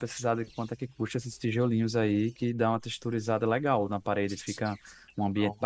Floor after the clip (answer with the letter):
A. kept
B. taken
A